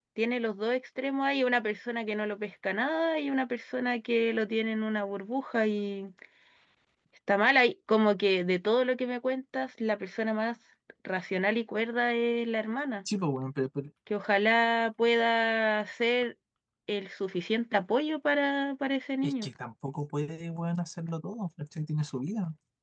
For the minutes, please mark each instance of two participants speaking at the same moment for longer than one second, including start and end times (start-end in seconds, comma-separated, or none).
none